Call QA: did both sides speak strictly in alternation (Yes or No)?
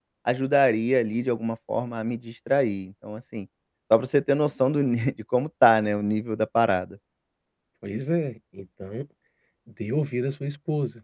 Yes